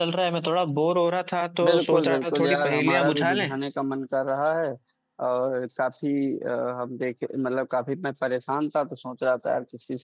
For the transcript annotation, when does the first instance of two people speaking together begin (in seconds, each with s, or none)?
1.6 s